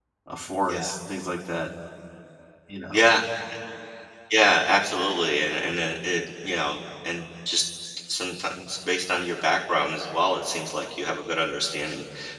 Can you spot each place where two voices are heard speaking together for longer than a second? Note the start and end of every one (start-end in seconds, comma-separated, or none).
none